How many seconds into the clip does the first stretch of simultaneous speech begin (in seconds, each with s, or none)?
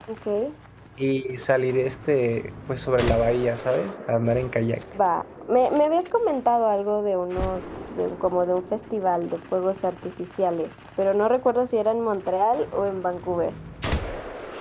none